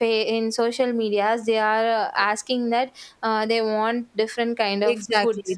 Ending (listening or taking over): taking over